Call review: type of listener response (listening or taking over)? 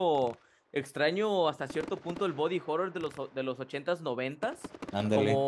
listening